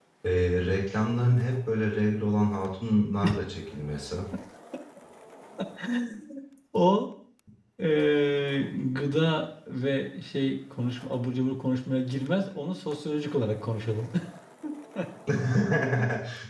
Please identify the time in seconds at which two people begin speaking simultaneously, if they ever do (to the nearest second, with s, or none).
none